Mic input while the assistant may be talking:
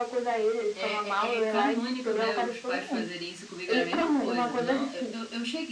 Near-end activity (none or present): present